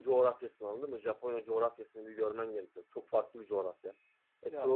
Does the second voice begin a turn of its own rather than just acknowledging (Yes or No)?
No